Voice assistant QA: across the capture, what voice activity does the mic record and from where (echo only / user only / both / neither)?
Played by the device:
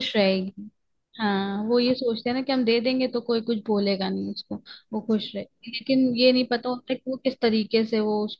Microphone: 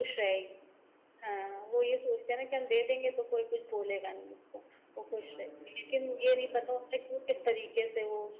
both